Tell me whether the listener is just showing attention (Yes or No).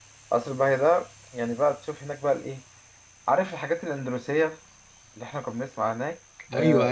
No